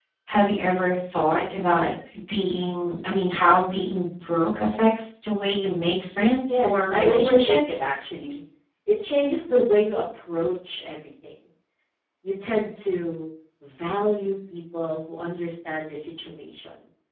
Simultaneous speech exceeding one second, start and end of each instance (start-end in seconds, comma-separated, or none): 6.5-7.9